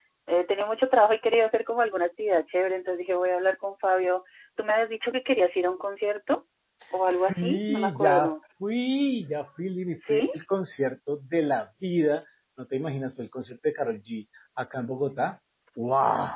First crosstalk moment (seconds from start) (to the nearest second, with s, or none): 7 s